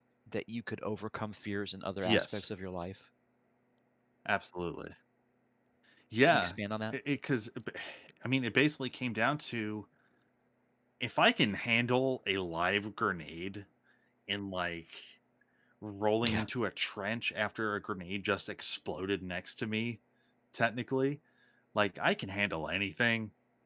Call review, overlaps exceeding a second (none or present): none